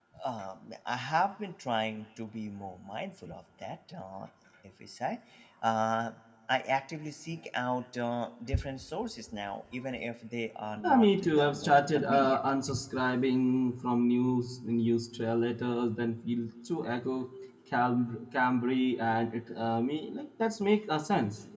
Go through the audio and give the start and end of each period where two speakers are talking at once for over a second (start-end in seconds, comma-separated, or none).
10.8-12.4